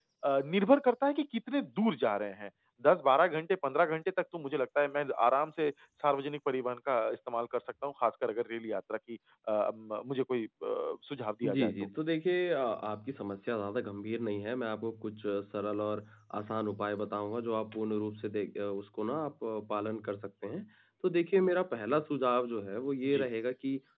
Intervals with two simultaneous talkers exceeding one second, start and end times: none

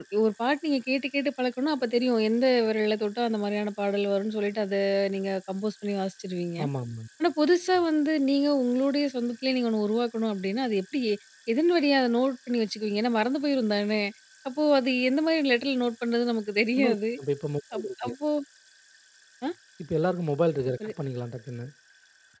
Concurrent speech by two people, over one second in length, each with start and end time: none

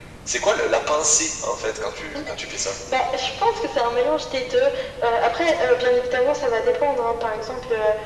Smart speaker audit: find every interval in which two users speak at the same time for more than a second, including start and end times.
none

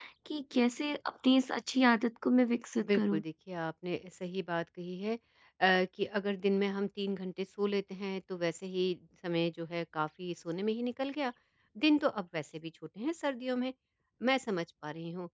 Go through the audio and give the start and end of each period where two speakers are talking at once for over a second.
none

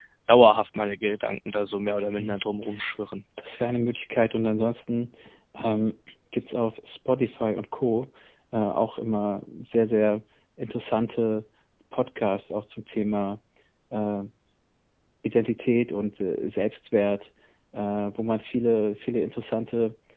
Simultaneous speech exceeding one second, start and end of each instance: none

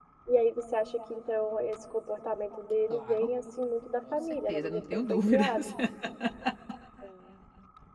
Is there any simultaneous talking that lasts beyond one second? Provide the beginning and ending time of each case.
4.1-5.7

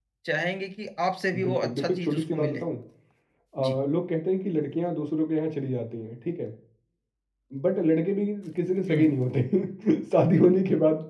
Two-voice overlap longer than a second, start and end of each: 1.4-2.6

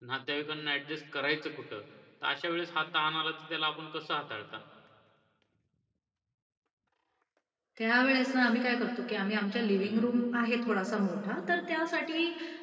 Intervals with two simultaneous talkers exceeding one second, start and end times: none

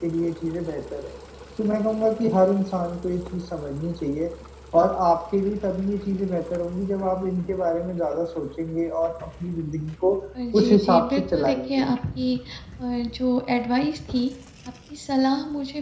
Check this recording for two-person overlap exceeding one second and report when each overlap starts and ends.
10.6-11.8

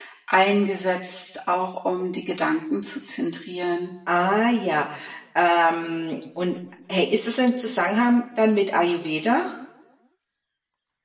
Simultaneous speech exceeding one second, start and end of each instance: none

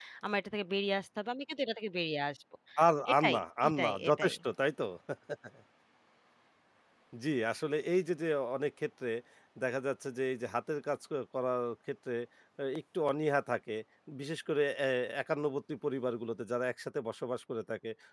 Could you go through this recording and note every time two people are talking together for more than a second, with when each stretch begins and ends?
3.1-4.3

